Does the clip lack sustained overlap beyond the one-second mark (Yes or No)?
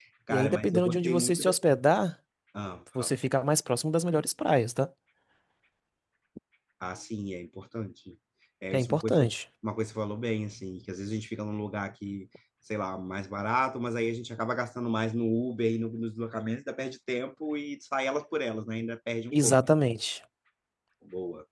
No